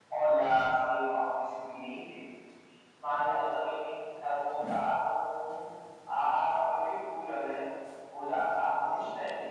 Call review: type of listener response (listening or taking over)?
listening